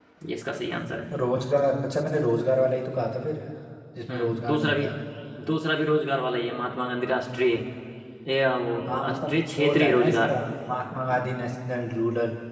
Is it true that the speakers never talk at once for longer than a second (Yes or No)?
No